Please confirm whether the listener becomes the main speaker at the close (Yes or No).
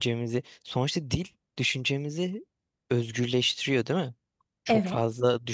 No